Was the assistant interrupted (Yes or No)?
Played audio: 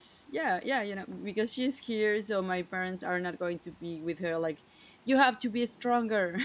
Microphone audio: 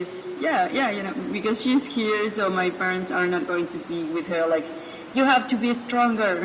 No